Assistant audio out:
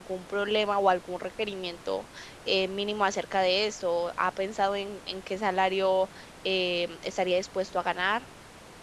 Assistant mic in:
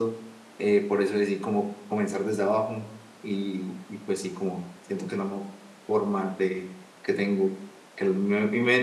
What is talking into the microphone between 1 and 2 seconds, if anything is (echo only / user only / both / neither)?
user only